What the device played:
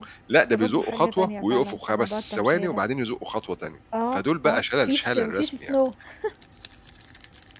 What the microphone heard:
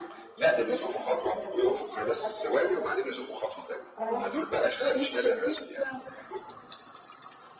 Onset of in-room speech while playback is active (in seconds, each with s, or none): 4.0 s